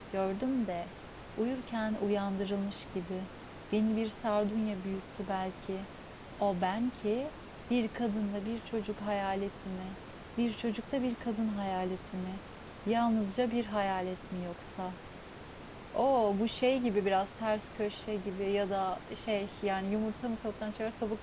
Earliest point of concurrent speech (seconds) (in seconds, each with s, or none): none